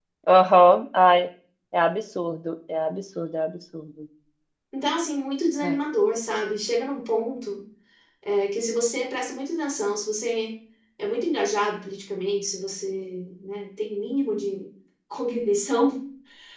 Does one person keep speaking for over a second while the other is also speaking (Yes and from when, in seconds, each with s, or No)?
No